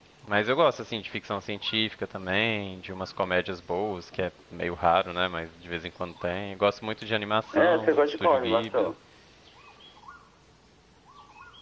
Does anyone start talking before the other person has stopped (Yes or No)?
Yes